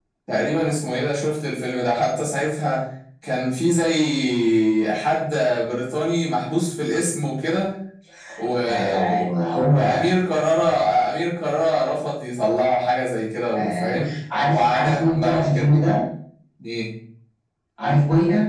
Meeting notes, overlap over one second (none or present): present